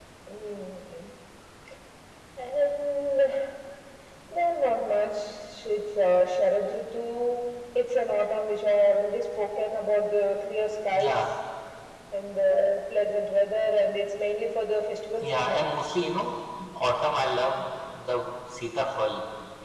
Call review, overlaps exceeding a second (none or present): none